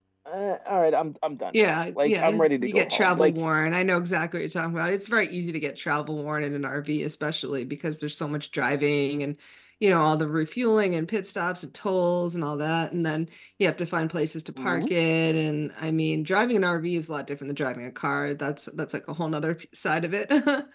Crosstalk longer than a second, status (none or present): present